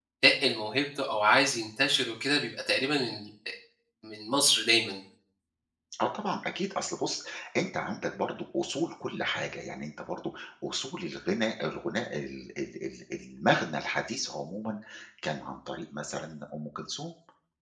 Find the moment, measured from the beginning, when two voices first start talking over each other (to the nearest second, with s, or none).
none